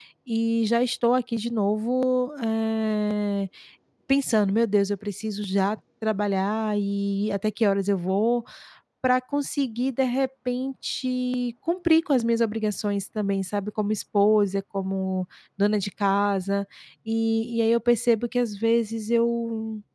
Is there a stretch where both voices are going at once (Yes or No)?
No